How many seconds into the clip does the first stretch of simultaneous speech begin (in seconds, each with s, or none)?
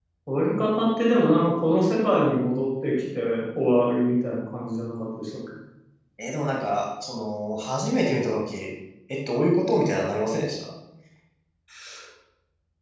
none